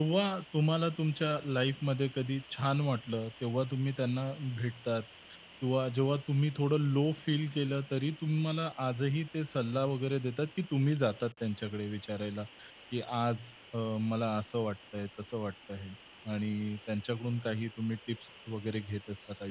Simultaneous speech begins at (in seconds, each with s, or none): none